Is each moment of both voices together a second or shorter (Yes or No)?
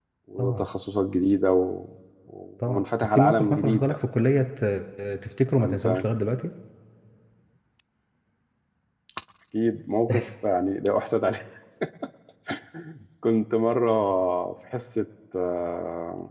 No